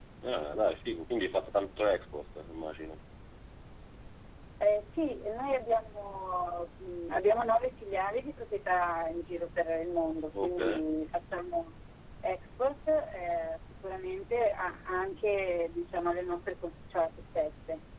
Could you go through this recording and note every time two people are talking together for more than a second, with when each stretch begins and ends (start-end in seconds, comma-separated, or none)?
none